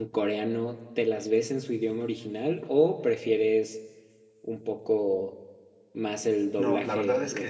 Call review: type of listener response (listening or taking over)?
taking over